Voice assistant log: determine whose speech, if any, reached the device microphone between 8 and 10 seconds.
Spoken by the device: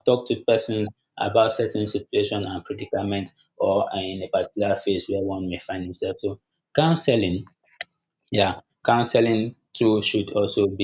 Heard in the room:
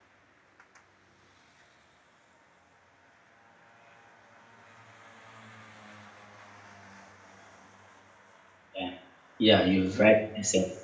user only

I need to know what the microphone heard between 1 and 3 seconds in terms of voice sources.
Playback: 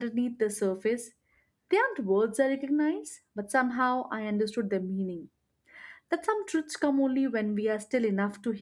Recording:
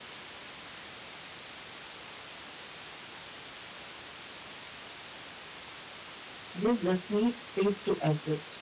neither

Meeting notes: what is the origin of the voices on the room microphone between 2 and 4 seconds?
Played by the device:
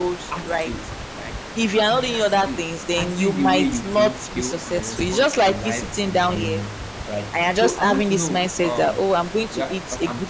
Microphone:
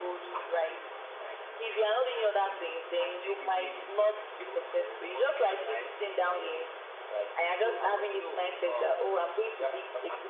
echo only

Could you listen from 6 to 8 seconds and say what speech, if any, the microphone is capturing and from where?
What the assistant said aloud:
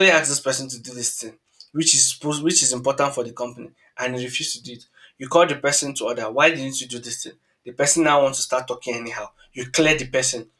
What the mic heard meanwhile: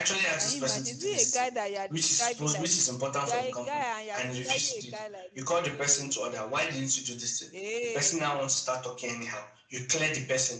both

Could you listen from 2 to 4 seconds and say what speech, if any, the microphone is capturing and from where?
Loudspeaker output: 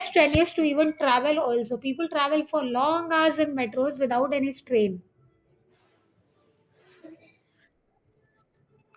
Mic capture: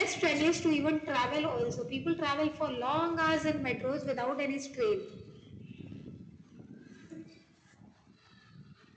echo only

